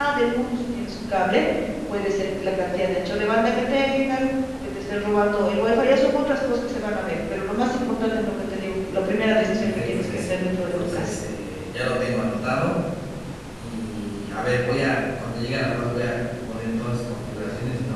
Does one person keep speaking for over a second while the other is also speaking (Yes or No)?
Yes